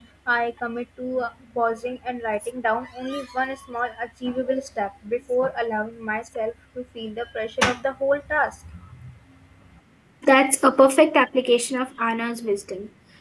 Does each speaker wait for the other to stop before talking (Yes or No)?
Yes